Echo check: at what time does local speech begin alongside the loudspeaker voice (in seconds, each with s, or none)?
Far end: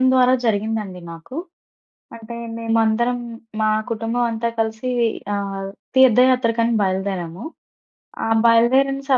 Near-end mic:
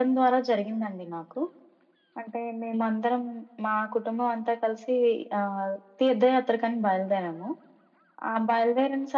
none